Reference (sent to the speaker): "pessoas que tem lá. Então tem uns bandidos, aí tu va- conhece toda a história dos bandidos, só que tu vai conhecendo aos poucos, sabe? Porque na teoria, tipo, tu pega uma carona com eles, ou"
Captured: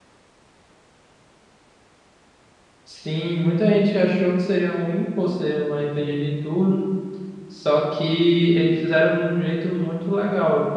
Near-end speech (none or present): present